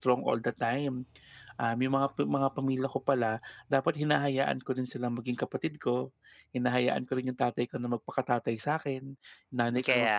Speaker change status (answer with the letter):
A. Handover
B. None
B